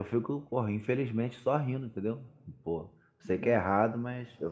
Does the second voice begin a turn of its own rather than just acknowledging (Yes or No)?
No